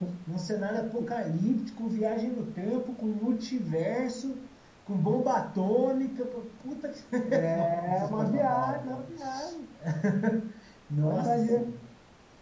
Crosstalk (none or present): present